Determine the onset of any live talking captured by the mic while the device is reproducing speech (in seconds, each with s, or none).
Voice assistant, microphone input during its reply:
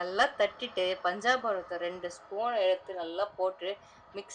none